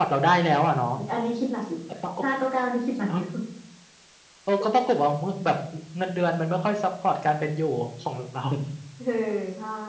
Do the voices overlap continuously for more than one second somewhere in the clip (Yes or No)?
No